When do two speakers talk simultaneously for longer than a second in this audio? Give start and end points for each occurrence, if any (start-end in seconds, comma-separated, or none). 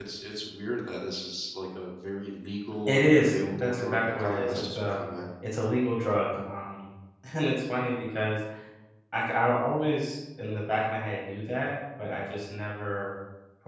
2.9-5.0